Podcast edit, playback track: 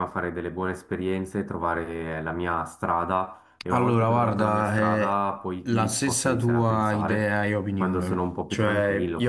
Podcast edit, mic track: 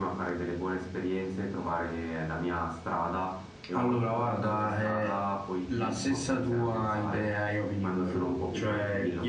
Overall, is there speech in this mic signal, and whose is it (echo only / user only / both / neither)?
echo only